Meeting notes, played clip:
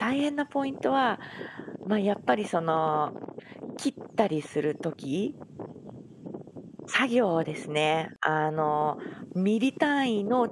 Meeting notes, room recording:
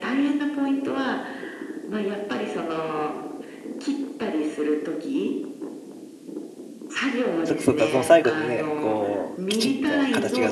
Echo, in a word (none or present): present